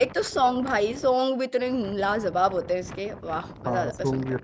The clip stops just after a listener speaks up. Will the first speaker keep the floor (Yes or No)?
No